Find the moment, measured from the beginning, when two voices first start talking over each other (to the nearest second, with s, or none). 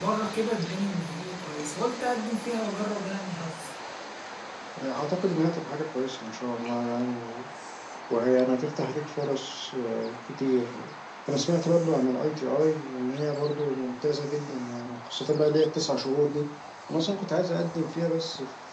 none